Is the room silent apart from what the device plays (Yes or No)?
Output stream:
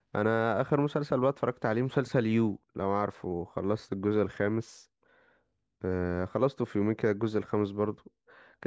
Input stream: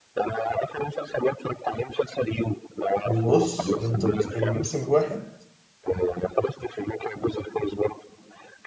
No